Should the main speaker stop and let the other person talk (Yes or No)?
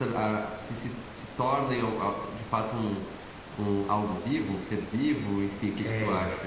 Yes